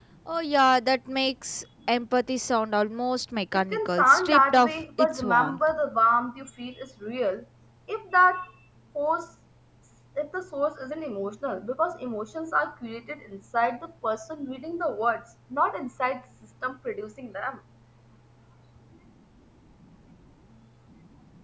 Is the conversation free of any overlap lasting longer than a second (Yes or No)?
No